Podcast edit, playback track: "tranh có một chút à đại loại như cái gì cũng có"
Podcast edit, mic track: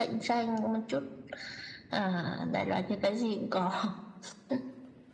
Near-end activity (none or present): none